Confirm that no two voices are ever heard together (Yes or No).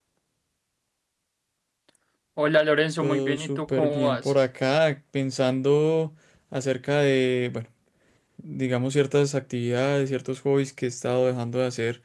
No